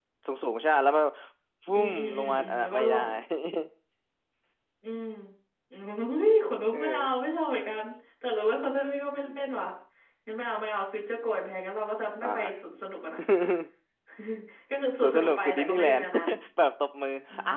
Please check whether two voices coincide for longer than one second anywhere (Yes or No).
Yes